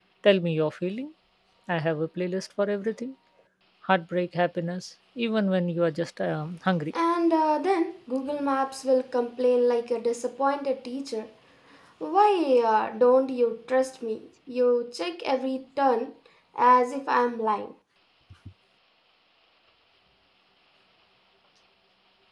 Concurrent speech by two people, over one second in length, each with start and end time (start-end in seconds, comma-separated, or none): none